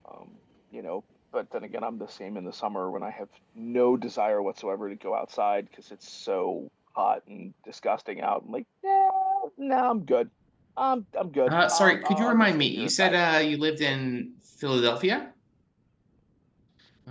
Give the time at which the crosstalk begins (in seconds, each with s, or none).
11.5 s